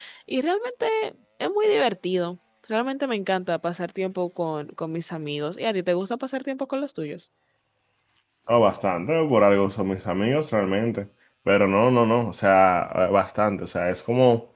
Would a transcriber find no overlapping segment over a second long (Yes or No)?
Yes